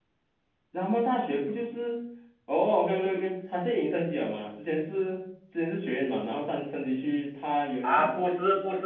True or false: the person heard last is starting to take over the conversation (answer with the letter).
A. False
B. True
B